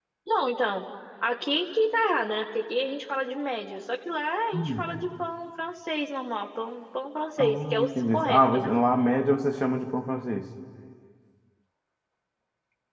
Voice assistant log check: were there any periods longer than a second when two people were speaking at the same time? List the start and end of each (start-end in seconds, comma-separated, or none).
7.4-8.7